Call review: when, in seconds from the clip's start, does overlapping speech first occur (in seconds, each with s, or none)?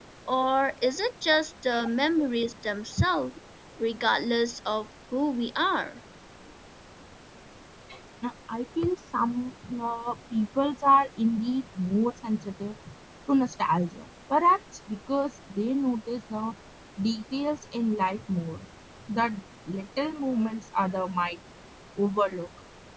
none